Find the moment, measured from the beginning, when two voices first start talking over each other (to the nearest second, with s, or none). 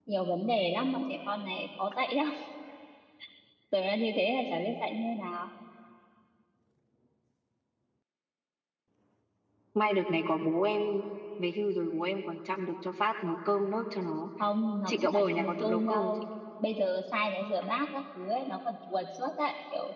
15 s